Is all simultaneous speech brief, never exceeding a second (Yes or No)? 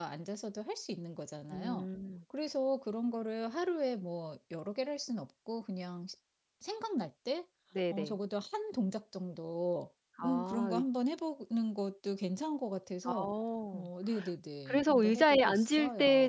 No